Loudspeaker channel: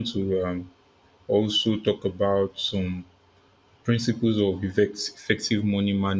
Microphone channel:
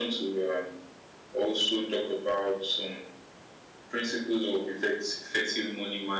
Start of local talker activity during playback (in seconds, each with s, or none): none